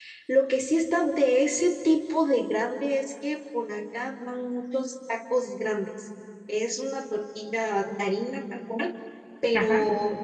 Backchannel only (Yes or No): Yes